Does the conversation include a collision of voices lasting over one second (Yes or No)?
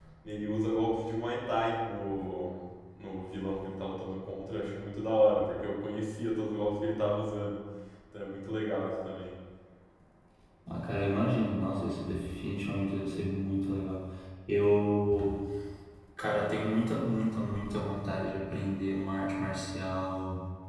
No